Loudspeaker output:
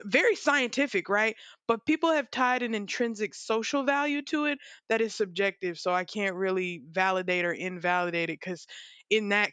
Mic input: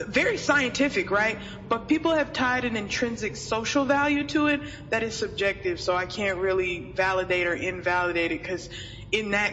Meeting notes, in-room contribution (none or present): none